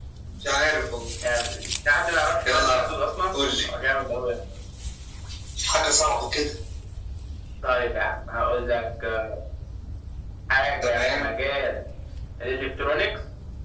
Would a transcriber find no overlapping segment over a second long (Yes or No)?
Yes